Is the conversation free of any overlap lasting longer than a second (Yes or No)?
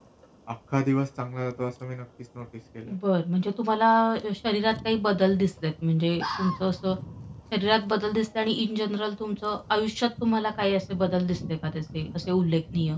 Yes